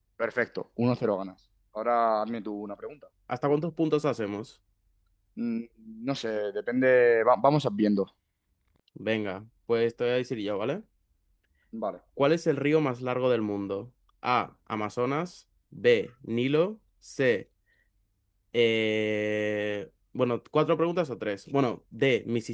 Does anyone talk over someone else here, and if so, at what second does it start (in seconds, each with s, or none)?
none